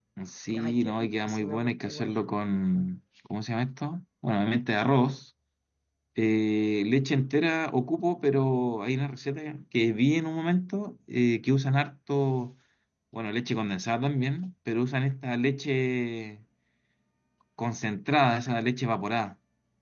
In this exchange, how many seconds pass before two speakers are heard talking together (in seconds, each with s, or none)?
0.6 s